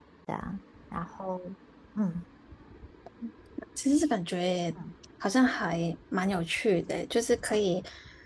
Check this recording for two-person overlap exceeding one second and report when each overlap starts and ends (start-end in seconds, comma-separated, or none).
none